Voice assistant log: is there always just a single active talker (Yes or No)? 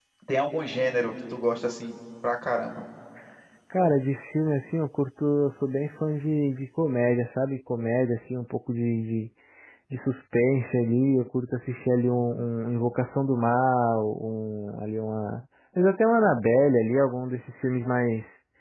Yes